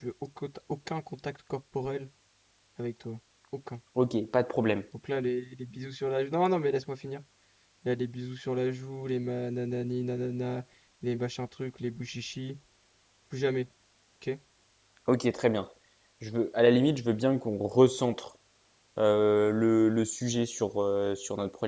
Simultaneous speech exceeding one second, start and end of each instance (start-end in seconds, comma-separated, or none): none